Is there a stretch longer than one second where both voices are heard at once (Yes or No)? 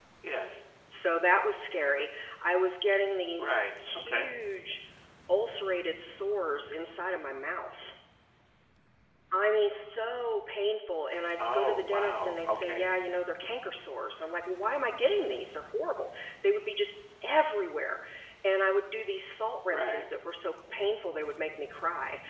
Yes